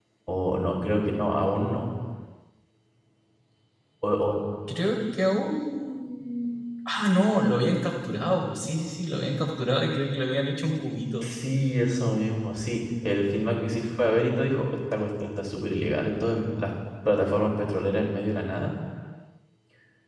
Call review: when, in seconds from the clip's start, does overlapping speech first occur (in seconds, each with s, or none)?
none